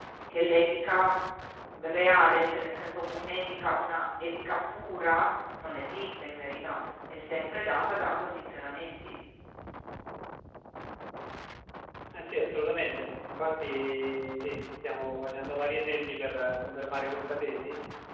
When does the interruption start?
none

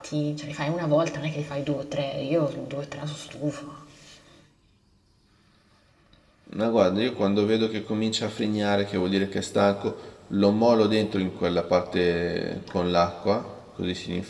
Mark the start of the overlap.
none

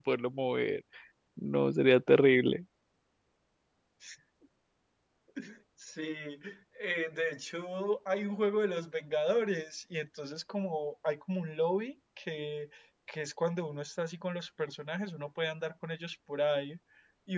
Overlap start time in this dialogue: none

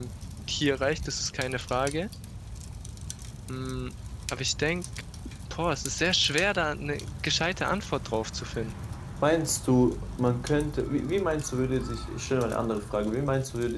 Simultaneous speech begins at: none

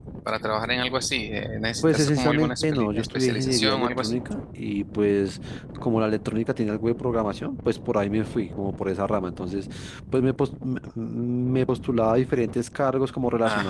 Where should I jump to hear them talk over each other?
1.8 s

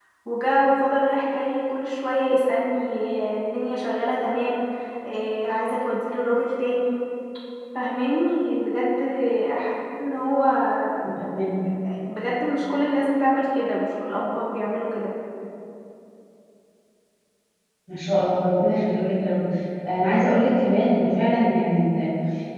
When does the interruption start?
none

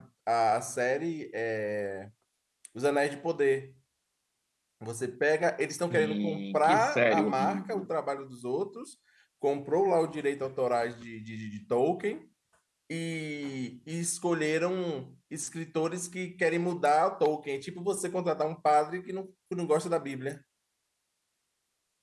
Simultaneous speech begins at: 5.7 s

